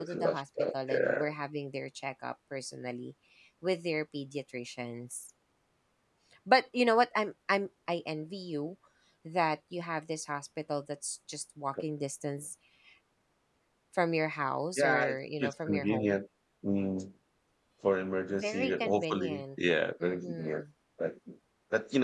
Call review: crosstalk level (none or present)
present